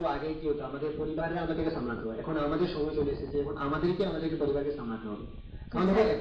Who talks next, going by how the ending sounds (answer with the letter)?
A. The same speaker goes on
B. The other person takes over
A